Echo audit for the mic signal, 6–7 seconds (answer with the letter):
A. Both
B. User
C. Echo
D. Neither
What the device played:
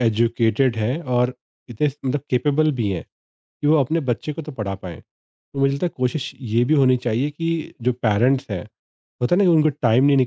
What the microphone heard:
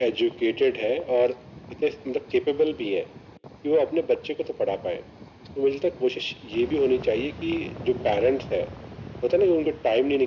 C